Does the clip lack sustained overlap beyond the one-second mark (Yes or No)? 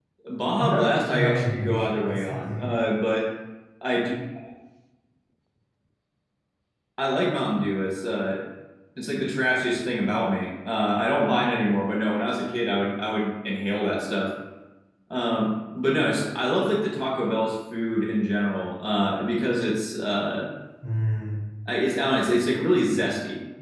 No